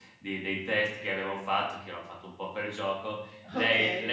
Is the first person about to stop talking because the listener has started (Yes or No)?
No